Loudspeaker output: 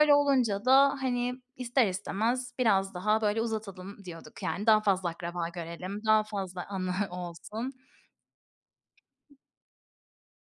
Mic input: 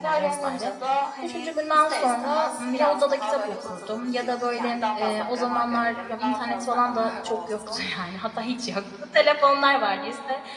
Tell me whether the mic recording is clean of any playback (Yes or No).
No